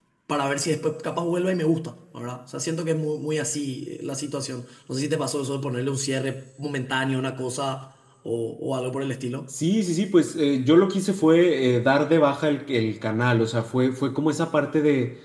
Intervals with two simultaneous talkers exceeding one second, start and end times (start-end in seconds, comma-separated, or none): none